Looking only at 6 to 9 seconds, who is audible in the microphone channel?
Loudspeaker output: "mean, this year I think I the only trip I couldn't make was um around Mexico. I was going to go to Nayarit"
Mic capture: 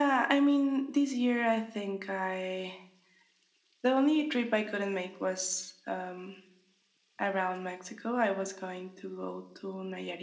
echo only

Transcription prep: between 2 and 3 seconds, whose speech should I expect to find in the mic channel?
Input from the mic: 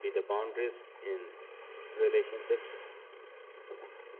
echo only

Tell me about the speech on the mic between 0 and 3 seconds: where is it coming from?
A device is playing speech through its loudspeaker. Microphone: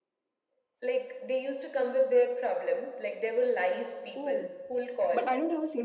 echo only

